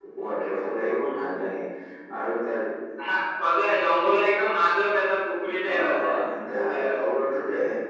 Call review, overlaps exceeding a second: none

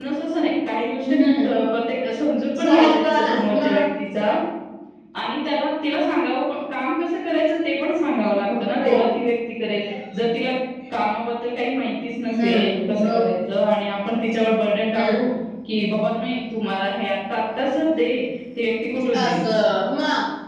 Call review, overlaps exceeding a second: present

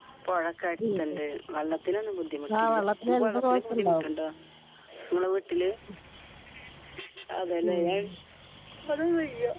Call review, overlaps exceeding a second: present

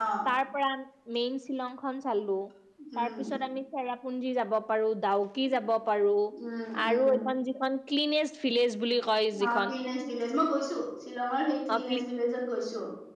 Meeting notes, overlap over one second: none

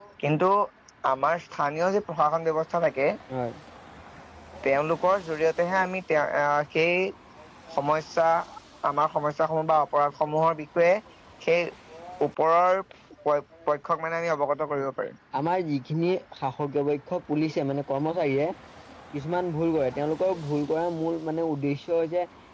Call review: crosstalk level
none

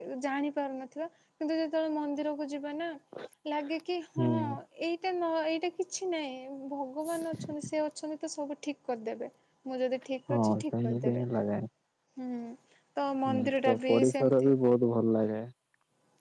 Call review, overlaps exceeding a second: present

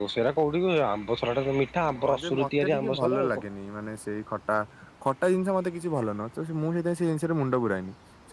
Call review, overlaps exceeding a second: present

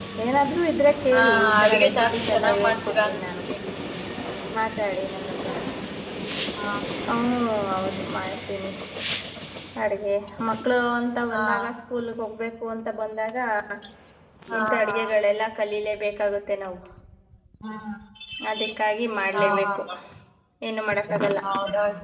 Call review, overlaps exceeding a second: present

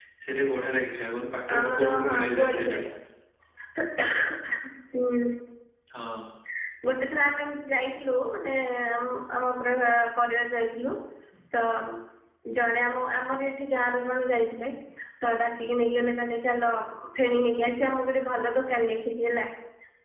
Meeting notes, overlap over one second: present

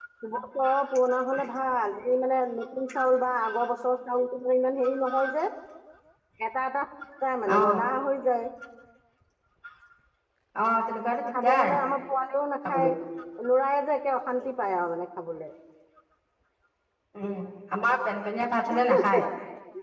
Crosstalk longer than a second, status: none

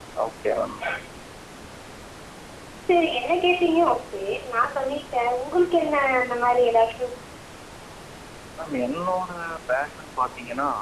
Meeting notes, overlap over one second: none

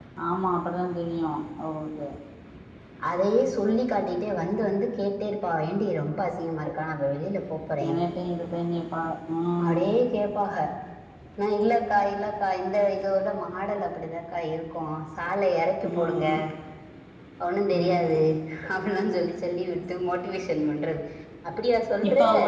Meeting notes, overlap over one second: none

